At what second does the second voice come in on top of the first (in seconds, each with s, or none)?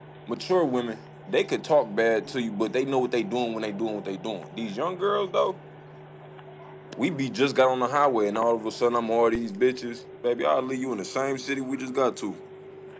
none